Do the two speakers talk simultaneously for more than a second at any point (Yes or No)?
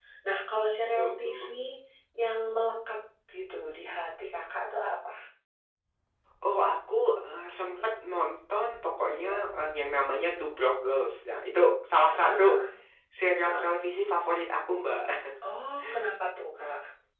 No